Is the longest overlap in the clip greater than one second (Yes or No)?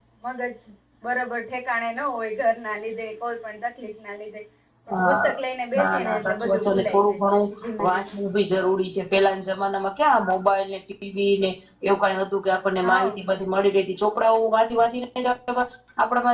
Yes